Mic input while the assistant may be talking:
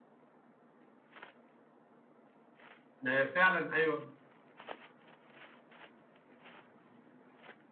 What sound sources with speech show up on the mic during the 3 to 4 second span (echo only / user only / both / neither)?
user only